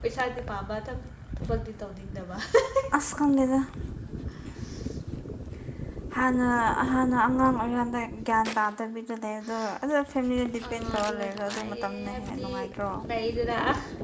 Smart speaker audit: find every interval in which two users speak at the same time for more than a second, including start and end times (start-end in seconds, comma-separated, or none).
10.7-12.5